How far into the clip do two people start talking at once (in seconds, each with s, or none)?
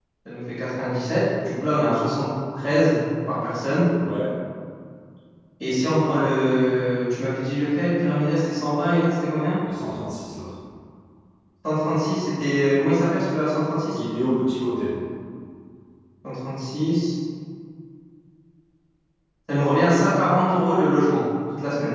none